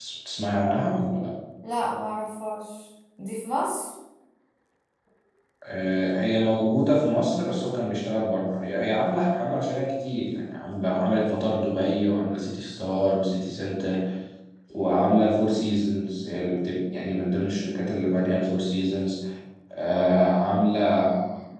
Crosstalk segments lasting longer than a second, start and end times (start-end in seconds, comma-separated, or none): none